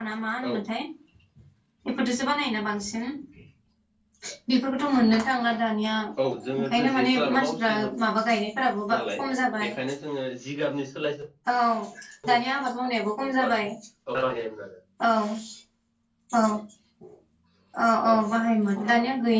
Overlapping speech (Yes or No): Yes